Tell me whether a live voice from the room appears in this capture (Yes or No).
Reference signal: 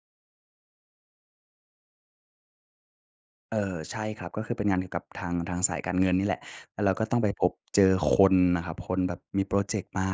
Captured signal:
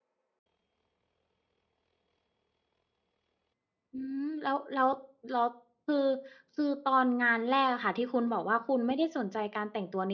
Yes